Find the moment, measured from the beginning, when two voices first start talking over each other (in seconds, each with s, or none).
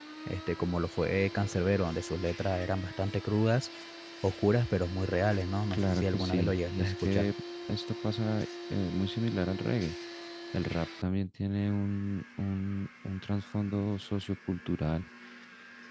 5.7 s